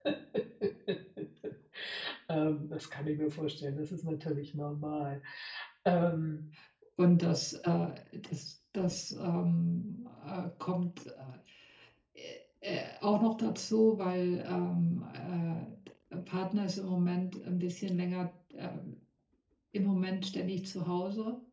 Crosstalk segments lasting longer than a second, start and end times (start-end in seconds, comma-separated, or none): none